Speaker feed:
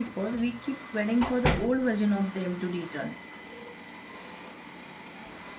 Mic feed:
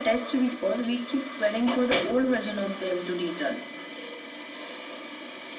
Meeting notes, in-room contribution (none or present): none